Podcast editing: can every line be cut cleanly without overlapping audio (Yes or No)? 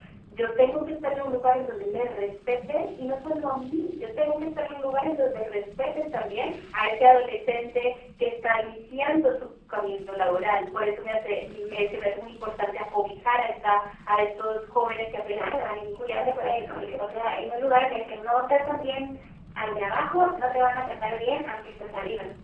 No